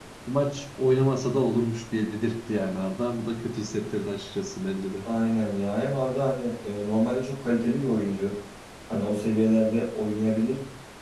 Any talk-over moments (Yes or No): No